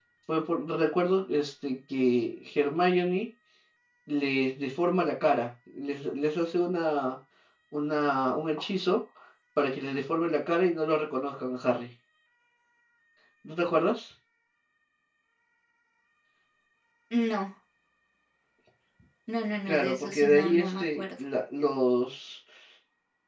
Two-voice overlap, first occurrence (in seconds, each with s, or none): 19.7 s